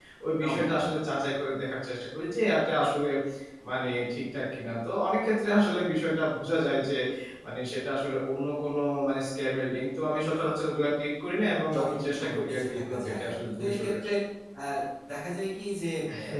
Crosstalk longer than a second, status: present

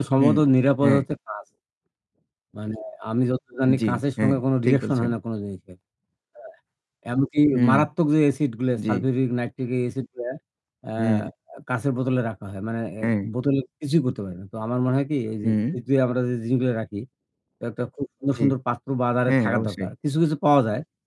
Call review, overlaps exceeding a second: present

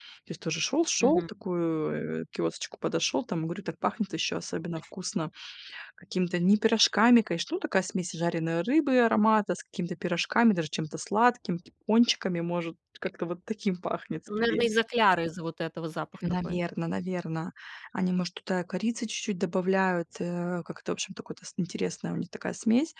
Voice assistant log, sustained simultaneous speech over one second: none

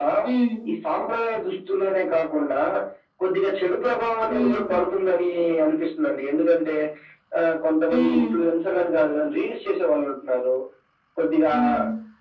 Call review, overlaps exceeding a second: none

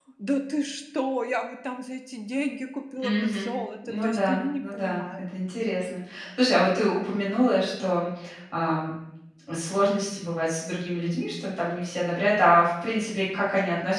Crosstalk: present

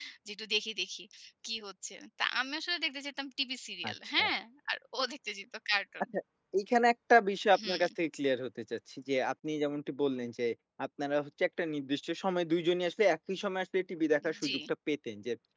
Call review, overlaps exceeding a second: none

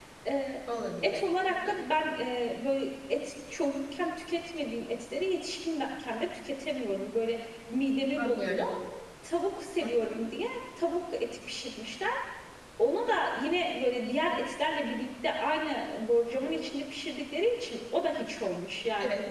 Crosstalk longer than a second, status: none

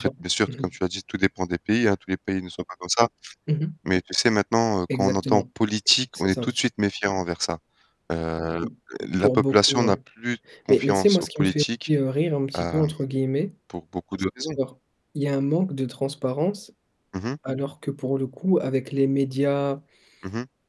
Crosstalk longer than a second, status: present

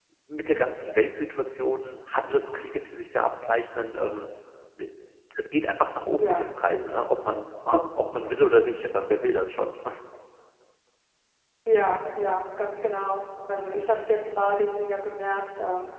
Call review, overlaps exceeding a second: none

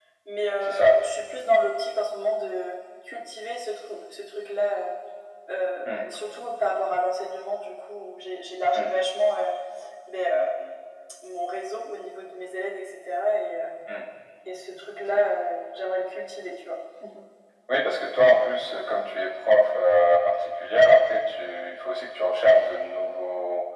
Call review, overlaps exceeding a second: none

